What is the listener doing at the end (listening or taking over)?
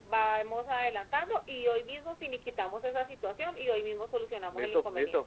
taking over